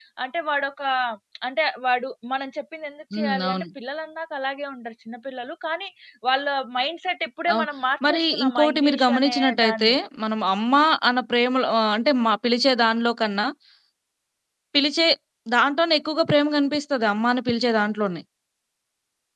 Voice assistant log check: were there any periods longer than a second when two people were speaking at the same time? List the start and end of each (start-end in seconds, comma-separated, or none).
8.1-9.9